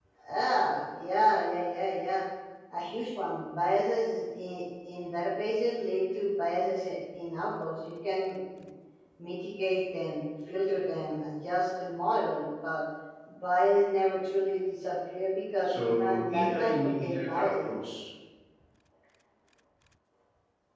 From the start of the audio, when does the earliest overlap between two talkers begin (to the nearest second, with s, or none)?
16 s